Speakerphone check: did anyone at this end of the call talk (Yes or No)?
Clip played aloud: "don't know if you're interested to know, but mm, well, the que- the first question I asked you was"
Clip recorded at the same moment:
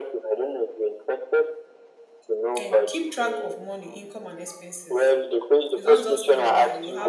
Yes